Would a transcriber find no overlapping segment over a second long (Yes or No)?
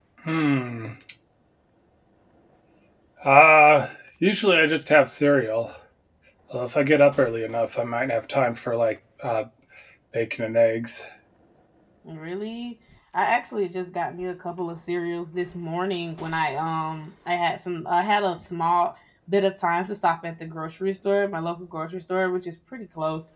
Yes